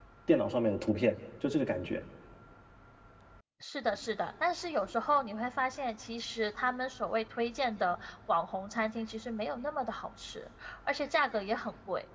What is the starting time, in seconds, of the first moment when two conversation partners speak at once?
none

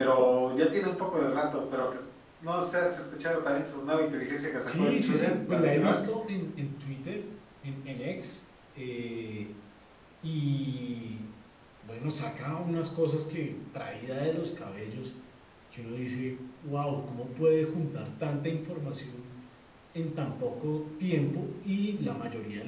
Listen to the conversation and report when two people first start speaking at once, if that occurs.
4.6 s

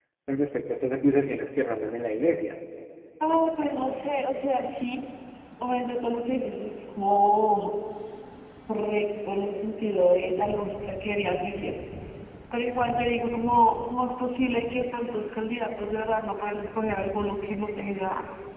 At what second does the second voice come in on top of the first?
none

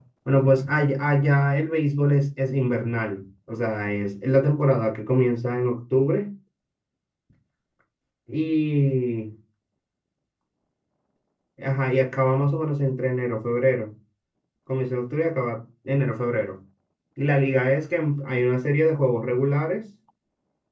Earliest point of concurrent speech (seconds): none

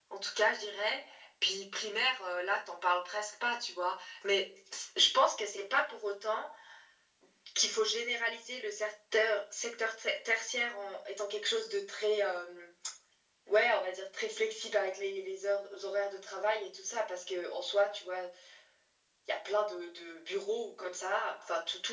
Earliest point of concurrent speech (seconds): none

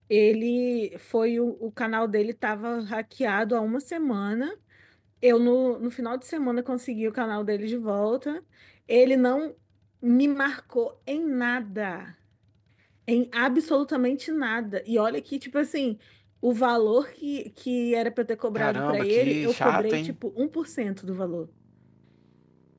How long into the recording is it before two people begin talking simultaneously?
18.6 s

